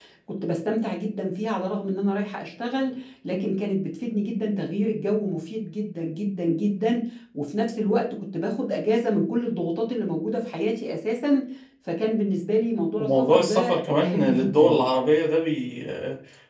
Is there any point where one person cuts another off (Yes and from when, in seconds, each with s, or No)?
Yes, from 13.0 s